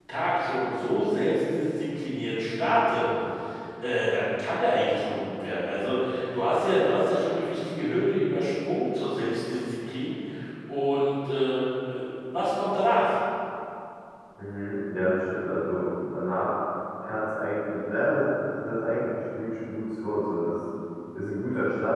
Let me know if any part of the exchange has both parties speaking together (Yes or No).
No